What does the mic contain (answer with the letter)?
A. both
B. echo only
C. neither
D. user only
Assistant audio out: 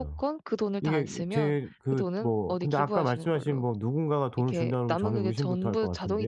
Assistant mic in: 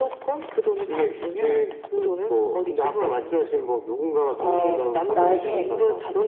A